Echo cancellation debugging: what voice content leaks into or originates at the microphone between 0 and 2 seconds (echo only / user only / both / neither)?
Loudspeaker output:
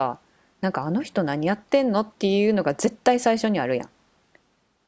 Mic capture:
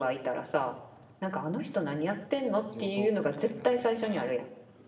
echo only